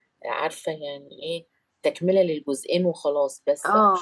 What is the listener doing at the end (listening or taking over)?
taking over